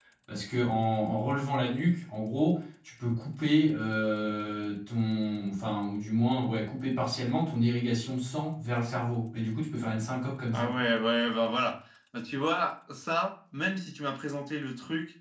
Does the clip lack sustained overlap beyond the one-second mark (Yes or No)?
Yes